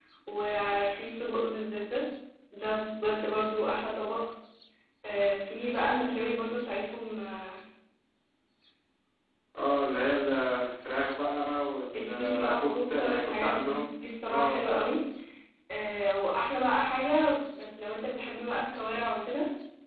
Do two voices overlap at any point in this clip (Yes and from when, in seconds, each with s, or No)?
Yes, from 12.0 s